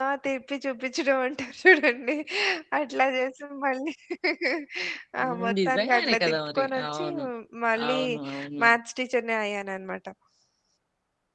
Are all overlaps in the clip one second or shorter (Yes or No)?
No